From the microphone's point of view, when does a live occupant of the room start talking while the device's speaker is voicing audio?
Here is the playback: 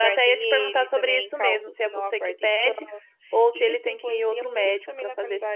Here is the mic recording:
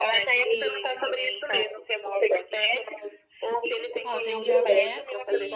4.0 s

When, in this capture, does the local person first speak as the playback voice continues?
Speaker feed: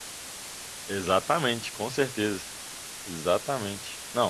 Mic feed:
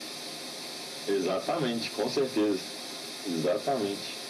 none

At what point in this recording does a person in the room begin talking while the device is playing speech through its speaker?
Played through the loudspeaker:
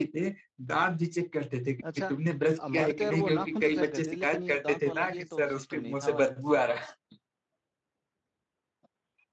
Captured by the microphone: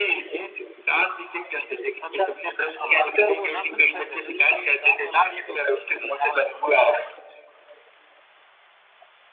none

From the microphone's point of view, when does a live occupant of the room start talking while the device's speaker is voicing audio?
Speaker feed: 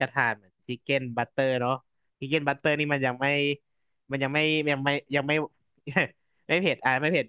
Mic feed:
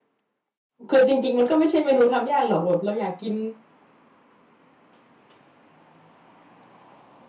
0.9 s

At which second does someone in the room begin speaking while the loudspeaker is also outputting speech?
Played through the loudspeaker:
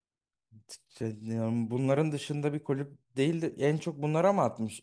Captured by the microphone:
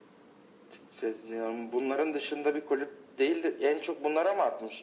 none

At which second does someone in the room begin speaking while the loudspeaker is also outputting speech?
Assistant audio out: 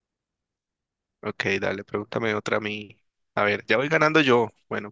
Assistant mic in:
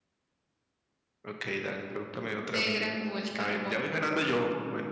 2.4 s

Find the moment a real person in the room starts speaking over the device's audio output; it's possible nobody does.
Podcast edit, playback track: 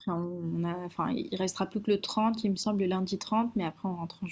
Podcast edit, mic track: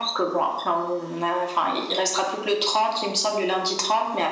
none

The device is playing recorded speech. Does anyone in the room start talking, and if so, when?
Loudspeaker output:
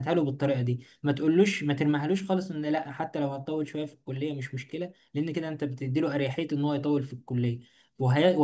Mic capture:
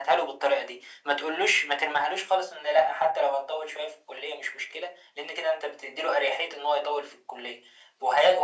none

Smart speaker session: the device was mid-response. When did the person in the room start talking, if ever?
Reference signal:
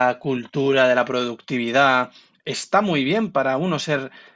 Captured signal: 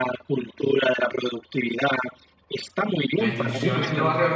3.2 s

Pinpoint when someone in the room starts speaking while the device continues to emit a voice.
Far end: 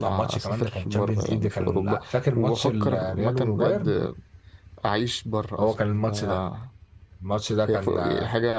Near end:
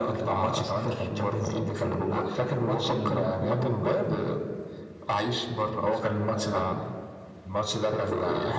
none

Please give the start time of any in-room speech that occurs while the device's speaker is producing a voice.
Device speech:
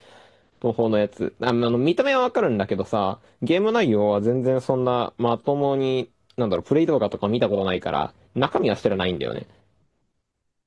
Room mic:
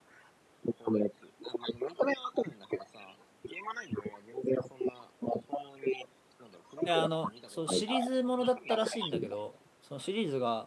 6.8 s

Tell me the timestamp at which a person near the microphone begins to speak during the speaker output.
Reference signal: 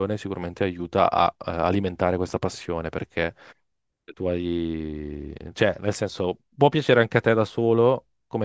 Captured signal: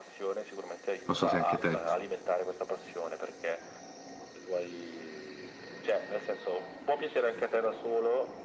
1.1 s

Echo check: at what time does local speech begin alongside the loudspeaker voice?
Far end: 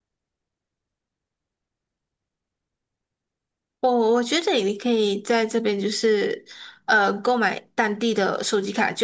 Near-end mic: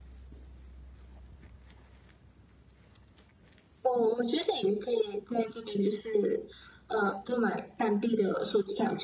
none

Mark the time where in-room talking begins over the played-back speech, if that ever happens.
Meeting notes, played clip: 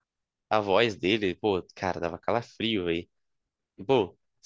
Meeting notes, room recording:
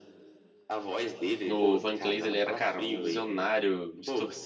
1.5 s

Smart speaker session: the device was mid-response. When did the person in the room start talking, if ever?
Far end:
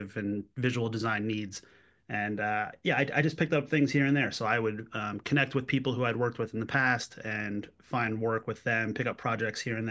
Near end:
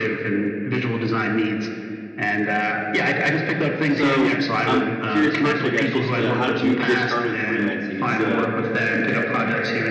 3.9 s

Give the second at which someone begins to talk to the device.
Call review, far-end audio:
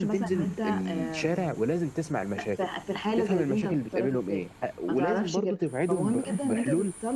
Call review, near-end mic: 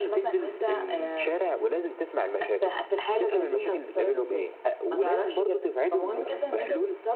none

